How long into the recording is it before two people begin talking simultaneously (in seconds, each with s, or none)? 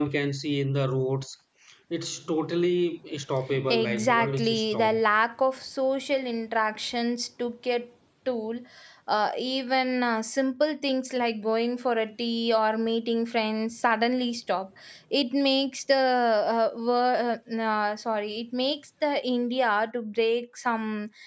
3.5 s